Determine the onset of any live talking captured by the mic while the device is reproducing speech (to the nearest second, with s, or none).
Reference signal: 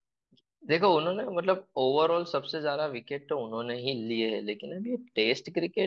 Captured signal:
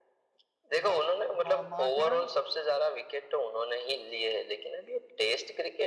1 s